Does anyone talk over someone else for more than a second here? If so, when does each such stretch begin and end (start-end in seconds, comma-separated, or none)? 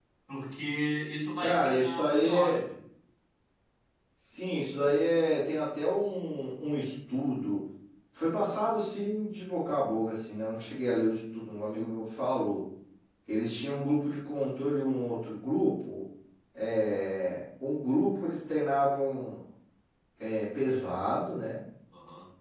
1.4-2.6